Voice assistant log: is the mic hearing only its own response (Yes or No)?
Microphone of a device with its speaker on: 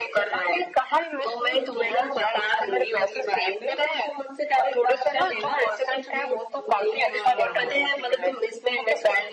No